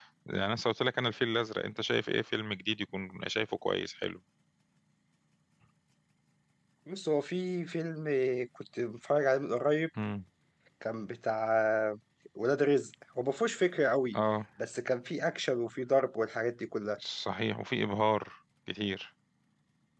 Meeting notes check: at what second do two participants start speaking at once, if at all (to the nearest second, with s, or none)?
none